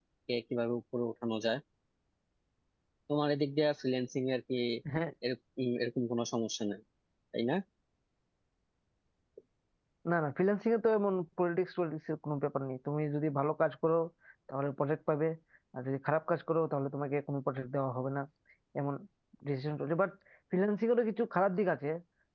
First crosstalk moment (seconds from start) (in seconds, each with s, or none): none